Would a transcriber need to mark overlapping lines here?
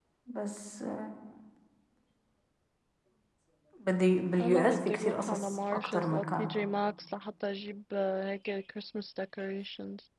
Yes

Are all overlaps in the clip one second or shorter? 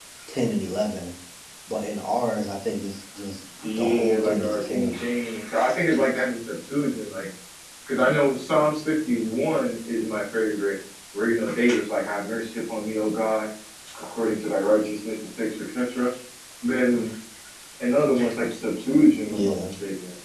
No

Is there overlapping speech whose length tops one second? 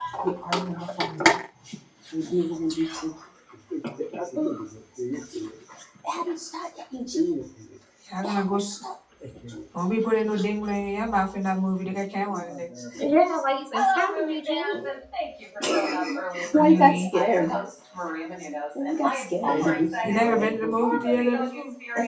Yes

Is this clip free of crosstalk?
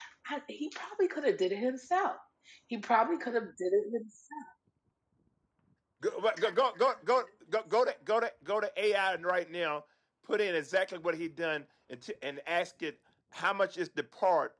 Yes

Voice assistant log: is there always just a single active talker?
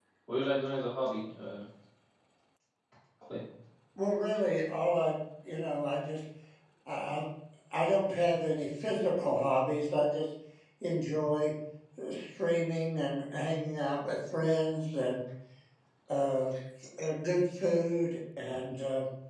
Yes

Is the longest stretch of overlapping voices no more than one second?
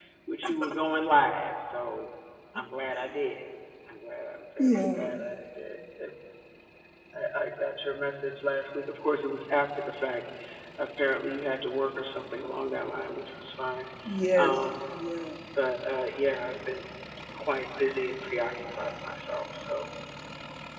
Yes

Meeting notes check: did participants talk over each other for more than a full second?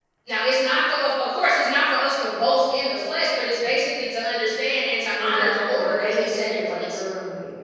Yes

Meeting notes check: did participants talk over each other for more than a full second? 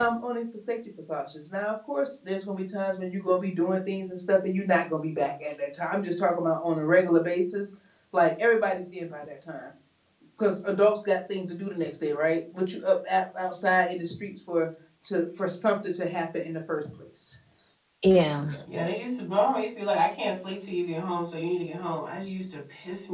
No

